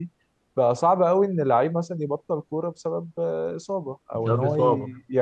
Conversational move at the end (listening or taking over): listening